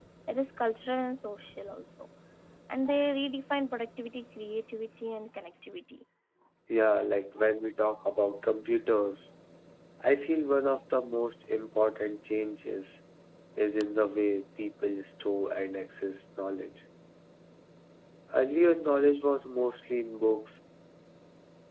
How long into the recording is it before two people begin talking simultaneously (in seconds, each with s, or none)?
none